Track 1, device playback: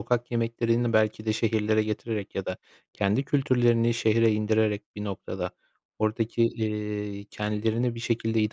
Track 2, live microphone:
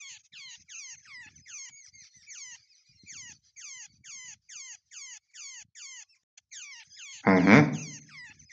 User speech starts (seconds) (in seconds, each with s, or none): 7.2 s